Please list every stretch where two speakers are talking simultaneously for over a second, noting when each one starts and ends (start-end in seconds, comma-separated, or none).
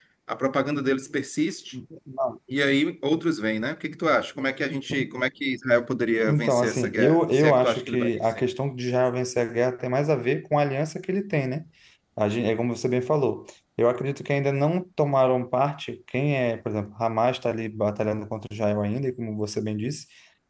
6.3-8.4